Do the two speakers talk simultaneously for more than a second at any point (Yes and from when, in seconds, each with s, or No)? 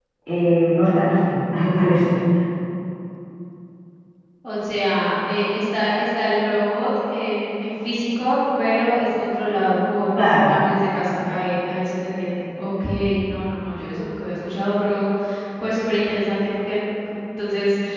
No